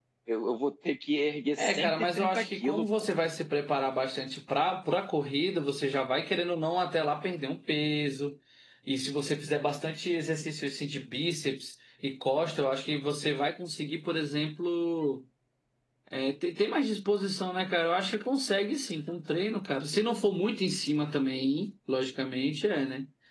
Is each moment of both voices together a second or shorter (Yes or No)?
No